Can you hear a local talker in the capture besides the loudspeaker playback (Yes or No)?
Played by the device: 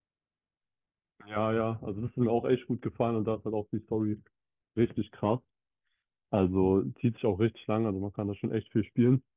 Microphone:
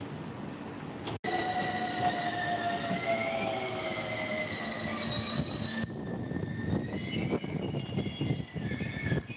No